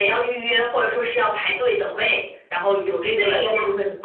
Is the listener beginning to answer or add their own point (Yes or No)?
Yes